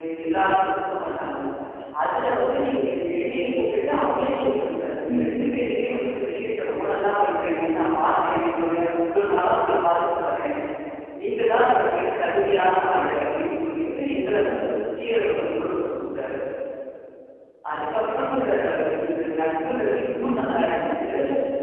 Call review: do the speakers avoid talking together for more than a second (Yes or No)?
Yes